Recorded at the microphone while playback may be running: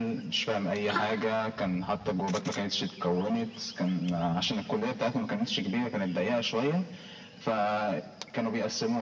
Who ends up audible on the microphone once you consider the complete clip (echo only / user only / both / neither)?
echo only